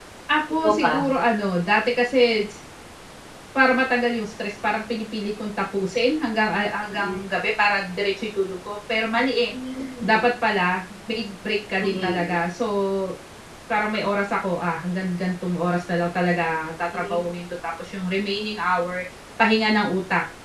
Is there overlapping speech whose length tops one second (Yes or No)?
No